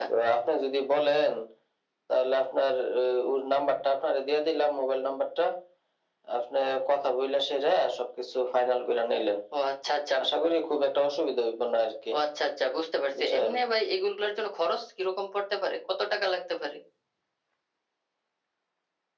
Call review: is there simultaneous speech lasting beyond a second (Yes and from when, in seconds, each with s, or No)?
No